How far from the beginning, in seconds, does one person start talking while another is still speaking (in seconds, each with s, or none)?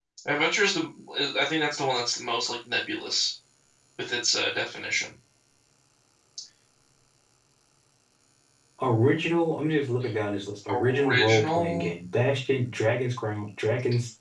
10.7 s